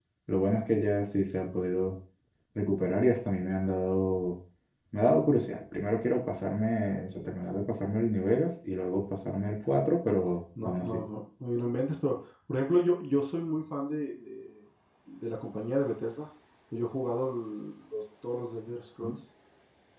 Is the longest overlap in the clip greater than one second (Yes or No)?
No